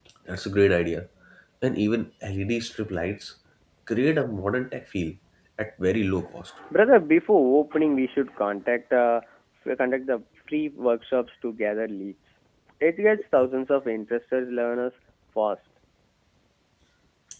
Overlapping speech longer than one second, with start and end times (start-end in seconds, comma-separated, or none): none